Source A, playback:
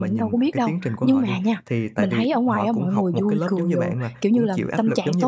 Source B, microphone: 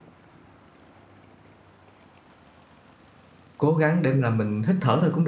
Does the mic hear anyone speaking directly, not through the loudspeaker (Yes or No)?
Yes